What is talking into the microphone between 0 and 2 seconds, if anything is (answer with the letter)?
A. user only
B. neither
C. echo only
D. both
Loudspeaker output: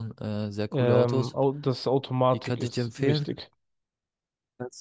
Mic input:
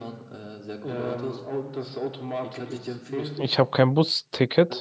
C